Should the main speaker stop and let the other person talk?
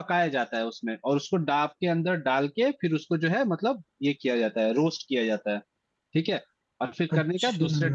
No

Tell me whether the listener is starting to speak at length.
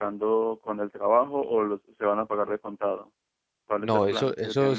Yes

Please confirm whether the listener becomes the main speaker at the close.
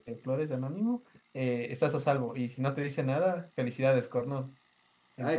Yes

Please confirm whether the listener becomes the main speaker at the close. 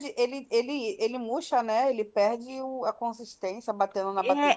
Yes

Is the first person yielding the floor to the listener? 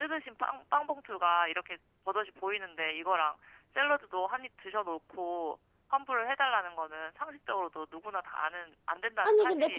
Yes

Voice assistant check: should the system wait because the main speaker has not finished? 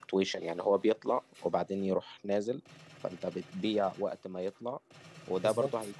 Yes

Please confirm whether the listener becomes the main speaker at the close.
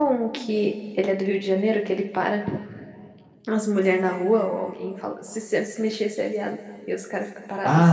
Yes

